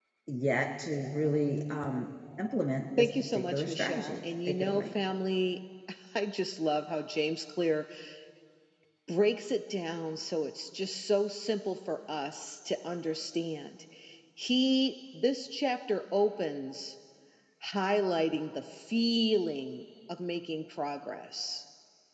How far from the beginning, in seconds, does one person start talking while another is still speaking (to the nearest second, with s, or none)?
3 s